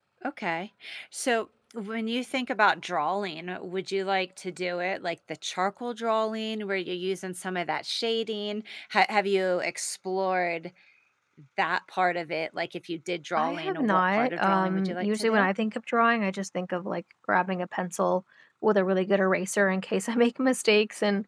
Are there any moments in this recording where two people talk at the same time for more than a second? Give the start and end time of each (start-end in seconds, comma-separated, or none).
13.4-15.5